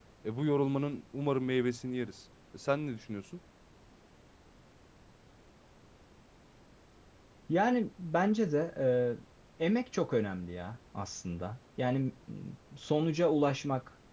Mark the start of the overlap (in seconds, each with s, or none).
none